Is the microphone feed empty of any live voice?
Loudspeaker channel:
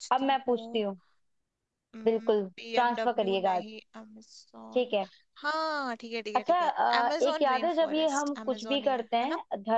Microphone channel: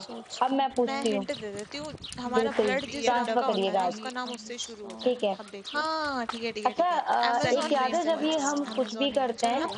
No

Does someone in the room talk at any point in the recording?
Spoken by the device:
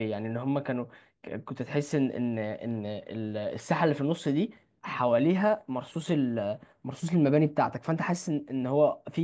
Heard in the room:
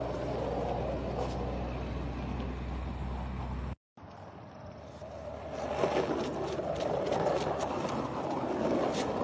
No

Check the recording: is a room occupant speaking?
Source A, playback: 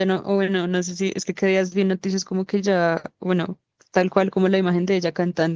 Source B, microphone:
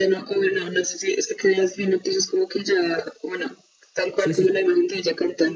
Yes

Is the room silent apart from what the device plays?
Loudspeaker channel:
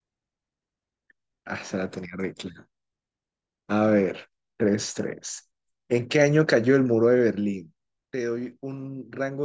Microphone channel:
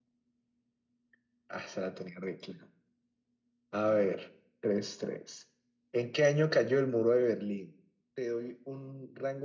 Yes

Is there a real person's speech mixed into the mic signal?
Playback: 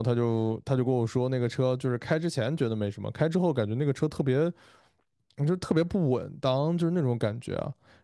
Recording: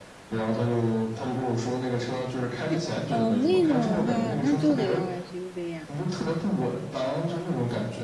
Yes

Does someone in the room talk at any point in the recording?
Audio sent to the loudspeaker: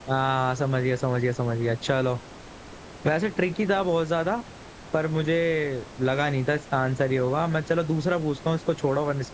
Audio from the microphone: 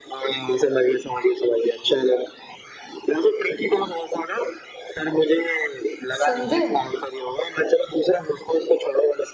Yes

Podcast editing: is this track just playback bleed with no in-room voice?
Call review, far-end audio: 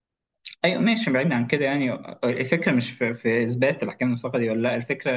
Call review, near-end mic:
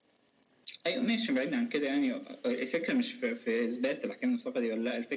Yes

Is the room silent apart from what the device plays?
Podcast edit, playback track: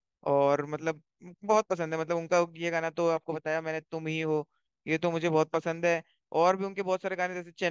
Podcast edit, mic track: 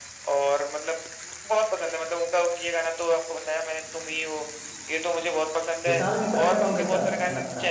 No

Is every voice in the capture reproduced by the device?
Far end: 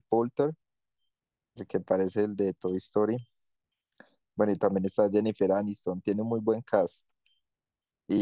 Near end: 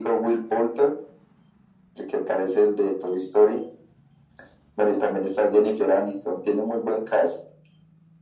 Yes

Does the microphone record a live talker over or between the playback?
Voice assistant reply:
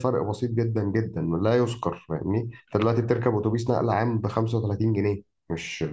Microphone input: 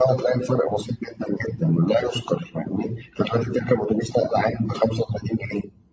No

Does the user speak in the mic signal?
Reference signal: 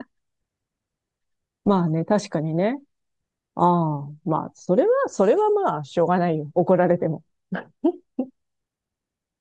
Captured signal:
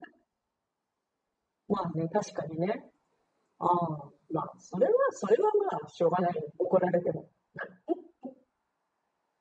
No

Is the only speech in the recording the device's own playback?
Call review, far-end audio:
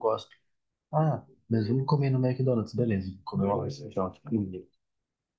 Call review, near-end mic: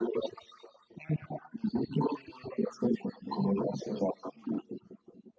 Yes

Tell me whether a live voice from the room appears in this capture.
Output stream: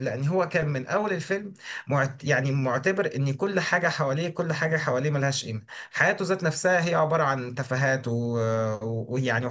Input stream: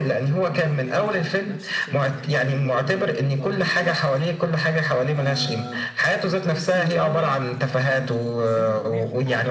Yes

